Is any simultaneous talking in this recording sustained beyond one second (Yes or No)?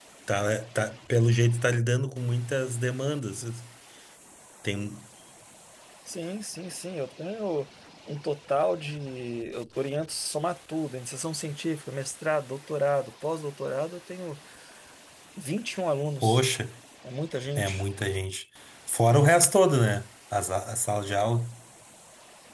No